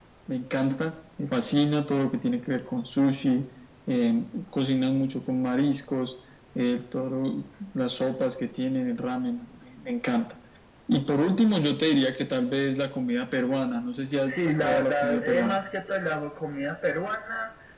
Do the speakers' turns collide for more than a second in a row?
Yes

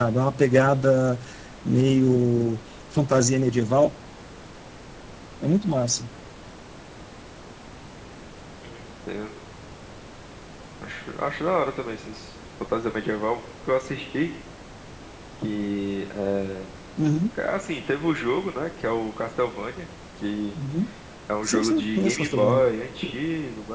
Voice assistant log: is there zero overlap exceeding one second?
No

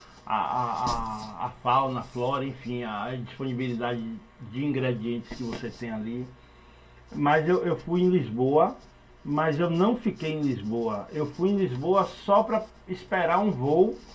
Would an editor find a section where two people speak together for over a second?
No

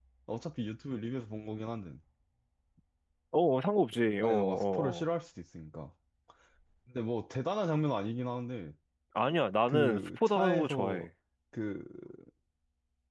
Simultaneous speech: Yes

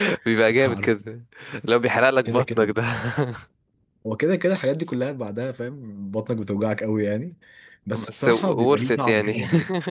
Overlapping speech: Yes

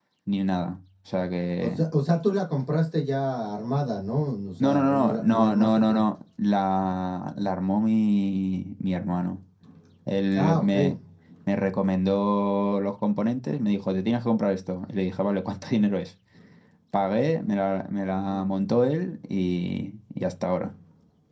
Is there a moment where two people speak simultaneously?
Yes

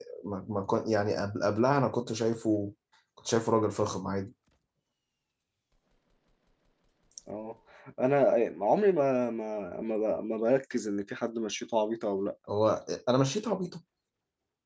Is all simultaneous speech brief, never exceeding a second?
Yes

